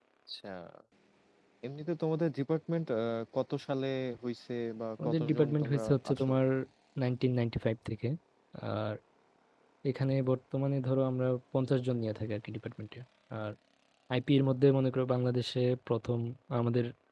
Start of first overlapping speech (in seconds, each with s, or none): 5.0 s